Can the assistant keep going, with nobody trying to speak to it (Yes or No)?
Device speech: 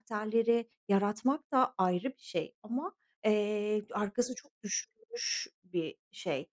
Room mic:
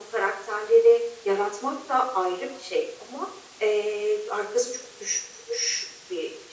Yes